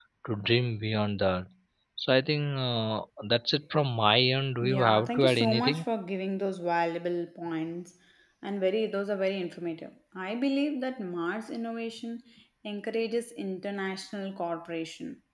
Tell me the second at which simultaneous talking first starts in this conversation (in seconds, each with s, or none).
4.6 s